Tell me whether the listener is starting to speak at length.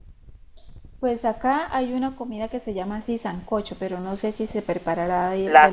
Yes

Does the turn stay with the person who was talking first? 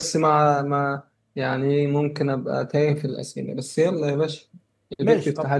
No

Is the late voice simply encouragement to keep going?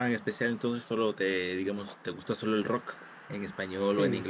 No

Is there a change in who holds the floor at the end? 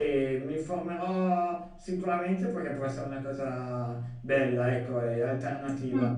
No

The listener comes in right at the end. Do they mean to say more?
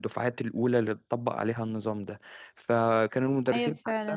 Yes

